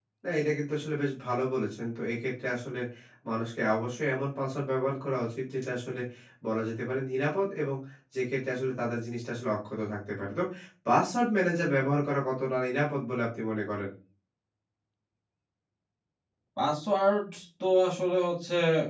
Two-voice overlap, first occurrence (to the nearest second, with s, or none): none